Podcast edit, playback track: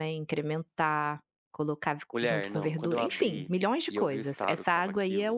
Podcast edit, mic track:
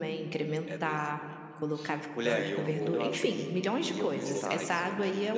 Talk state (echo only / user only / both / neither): both